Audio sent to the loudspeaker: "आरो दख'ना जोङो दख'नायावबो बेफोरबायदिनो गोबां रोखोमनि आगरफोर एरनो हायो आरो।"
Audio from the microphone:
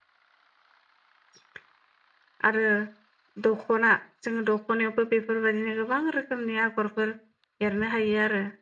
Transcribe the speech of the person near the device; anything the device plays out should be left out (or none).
none